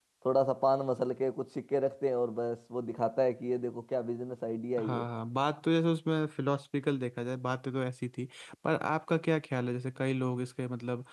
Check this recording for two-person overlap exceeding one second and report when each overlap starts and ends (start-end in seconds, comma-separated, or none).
none